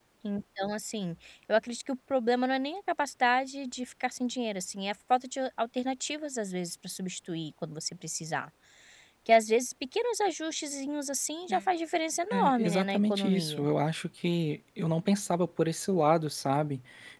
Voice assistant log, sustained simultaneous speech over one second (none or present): present